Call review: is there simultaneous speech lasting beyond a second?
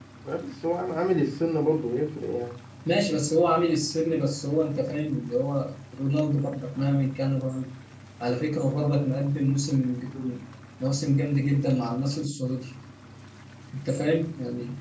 No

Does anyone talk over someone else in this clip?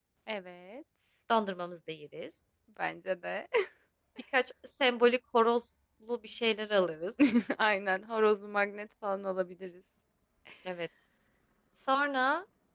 No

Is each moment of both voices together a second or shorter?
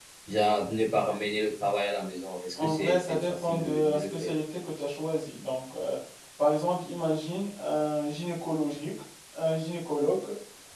No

